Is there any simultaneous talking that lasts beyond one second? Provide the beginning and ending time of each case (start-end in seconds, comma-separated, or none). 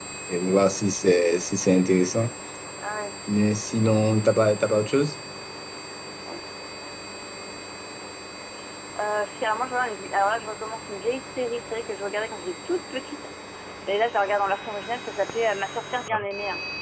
none